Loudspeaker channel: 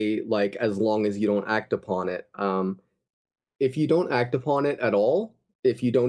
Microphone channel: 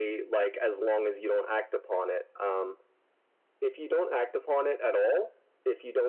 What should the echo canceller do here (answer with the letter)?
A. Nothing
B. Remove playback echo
B